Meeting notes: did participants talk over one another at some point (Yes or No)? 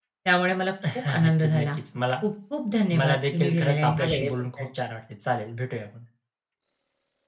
Yes